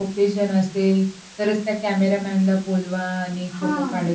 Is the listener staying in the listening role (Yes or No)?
Yes